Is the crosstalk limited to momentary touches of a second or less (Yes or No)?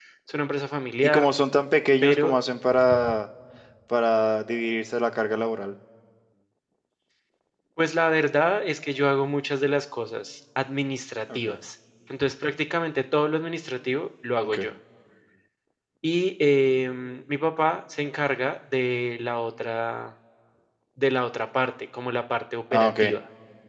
Yes